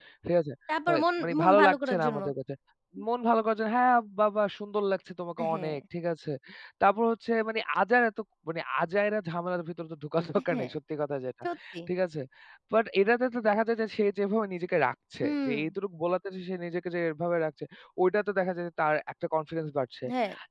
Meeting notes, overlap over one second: present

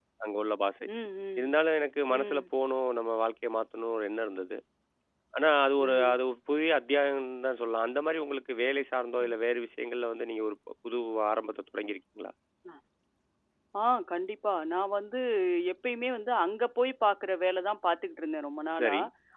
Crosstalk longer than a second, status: none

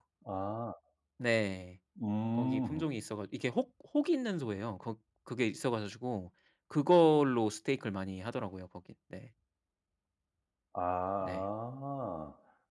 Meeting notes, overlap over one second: none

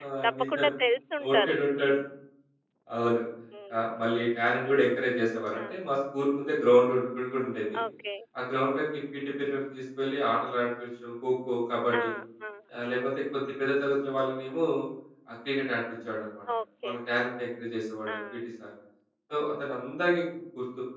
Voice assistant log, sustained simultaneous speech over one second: none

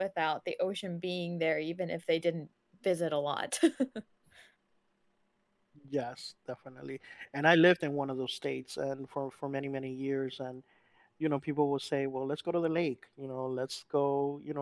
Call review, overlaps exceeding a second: none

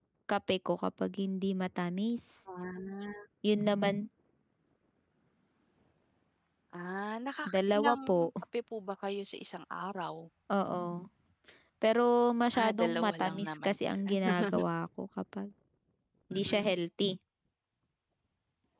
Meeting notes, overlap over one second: present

